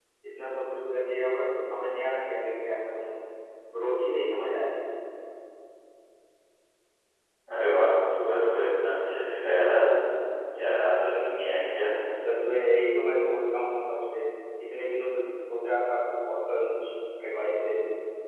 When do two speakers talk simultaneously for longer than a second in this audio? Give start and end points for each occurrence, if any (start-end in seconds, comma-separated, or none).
none